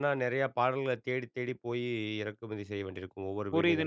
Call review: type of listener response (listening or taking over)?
taking over